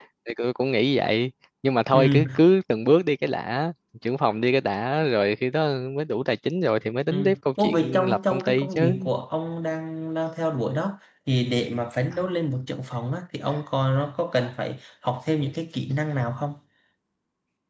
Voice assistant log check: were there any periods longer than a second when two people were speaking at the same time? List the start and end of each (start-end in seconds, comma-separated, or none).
7.6-9.0